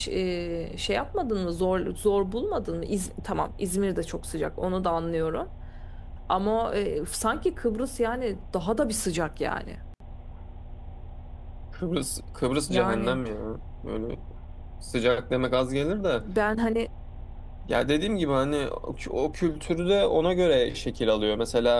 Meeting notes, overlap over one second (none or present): none